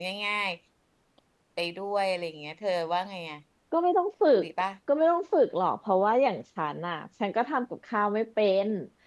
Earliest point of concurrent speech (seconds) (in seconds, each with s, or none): none